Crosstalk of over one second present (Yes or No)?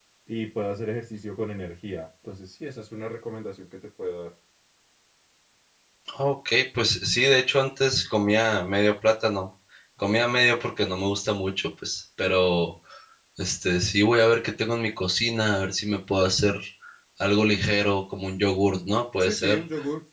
No